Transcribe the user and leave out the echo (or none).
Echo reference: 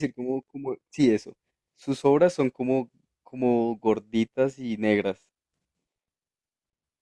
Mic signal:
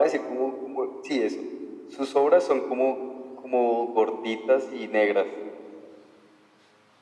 none